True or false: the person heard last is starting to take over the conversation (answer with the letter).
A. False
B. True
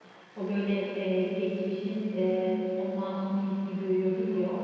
A